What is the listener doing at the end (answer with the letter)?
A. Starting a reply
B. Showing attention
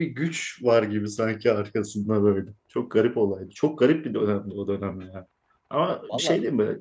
B